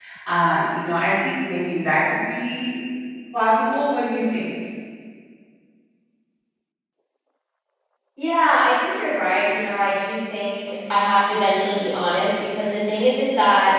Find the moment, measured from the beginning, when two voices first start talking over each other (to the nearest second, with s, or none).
none